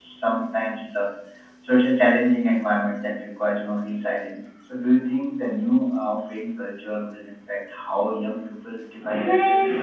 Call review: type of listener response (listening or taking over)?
taking over